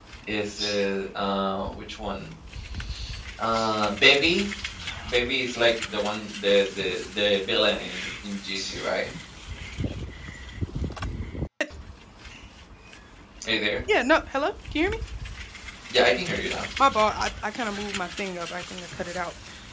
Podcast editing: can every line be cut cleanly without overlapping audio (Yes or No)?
Yes